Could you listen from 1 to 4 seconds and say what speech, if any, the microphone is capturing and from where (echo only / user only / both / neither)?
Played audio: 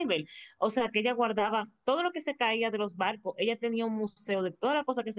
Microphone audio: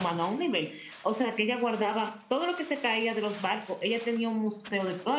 echo only